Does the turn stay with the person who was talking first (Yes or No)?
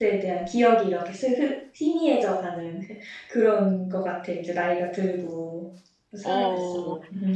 No